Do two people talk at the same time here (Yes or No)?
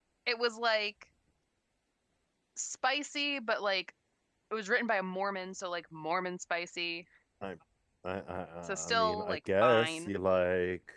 Yes